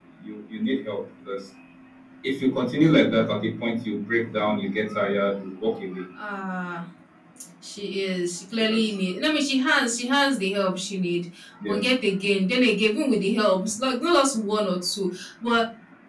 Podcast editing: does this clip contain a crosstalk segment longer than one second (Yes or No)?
No